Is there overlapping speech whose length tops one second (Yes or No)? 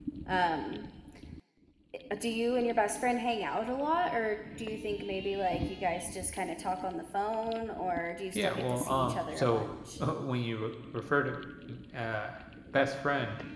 Yes